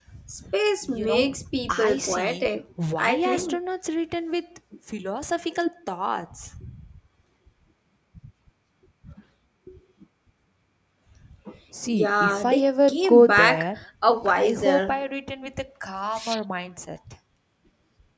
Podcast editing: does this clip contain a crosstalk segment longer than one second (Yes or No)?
Yes